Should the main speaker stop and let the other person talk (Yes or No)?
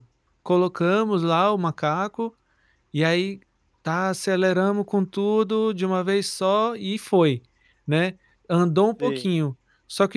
No